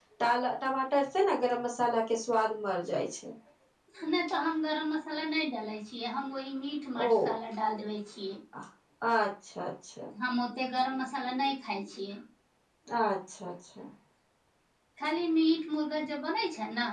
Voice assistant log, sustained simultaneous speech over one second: none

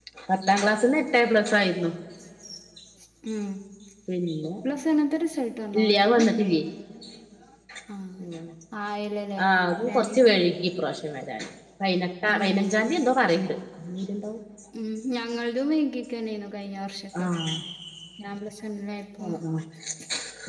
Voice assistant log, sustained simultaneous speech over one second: none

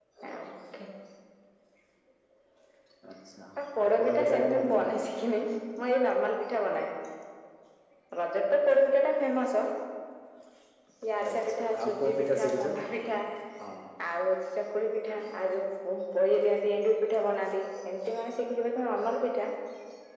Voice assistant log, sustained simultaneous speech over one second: present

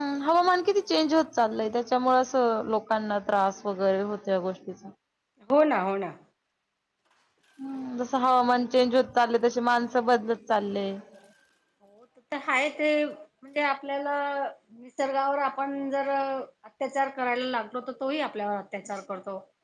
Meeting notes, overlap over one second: none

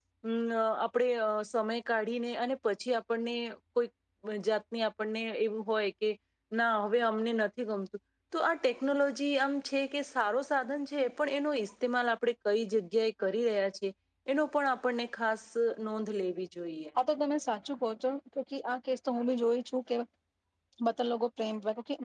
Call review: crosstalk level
none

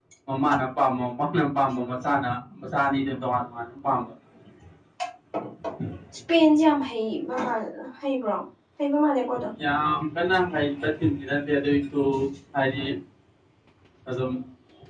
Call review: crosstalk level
none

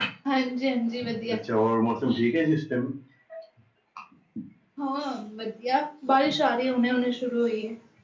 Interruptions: none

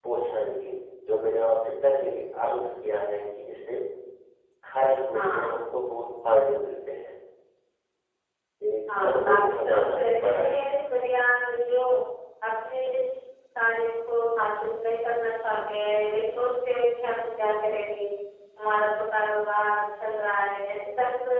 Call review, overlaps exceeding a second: present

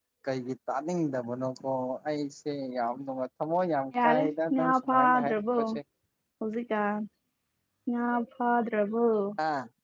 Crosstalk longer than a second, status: present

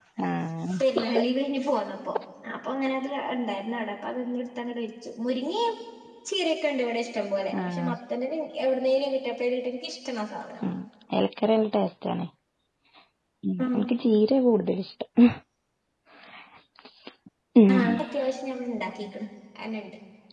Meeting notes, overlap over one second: none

